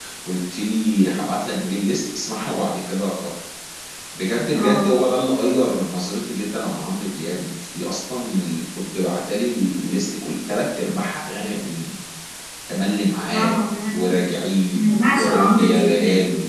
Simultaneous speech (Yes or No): Yes